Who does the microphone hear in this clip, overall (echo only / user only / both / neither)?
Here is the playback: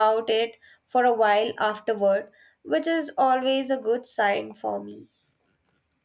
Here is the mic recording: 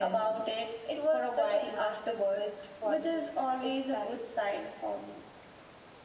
both